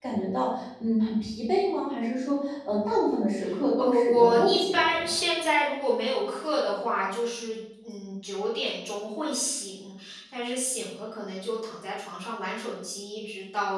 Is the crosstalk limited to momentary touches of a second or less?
No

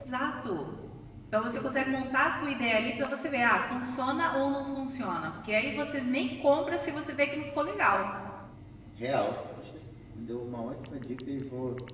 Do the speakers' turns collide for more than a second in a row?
No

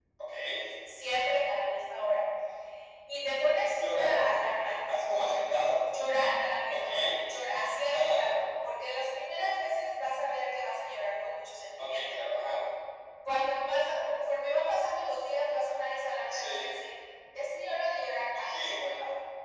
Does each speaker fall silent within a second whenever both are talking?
Yes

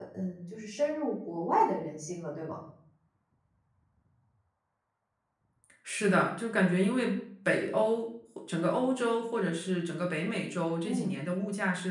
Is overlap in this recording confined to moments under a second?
Yes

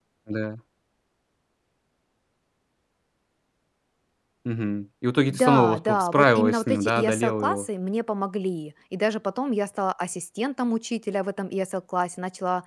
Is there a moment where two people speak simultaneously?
Yes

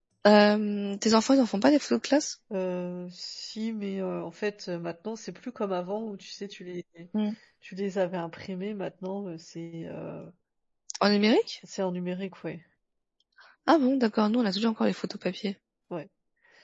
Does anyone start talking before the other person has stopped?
No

